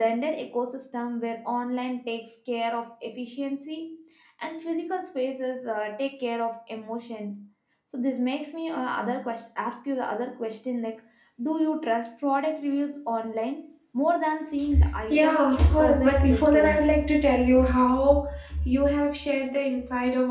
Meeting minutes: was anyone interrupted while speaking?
Yes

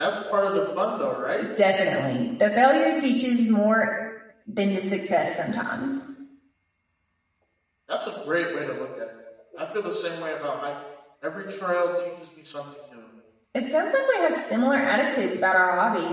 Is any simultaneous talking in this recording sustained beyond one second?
No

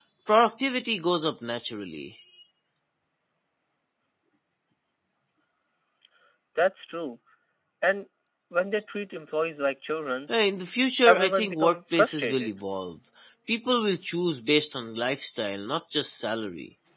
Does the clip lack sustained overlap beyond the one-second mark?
No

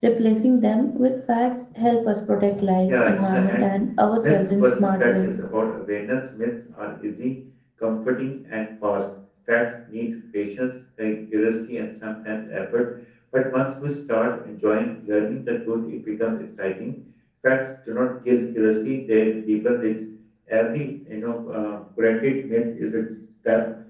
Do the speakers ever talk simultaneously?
Yes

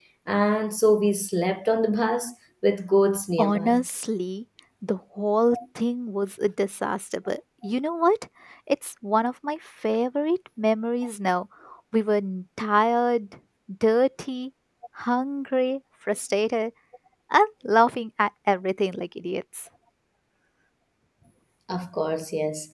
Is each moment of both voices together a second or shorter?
Yes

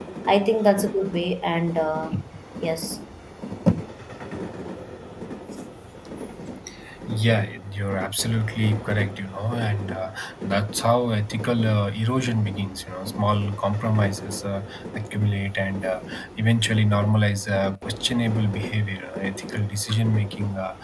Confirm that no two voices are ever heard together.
Yes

